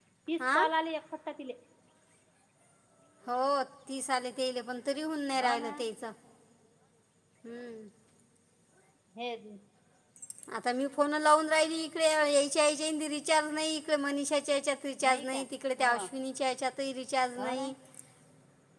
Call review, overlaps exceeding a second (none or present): none